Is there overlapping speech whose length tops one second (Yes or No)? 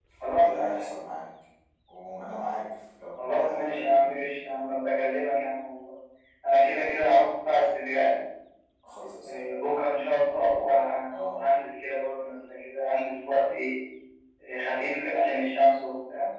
Yes